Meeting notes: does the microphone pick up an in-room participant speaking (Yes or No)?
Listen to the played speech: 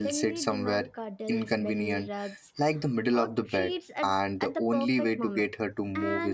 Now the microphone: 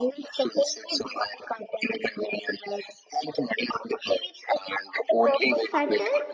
Yes